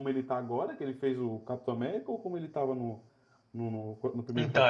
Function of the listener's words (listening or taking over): taking over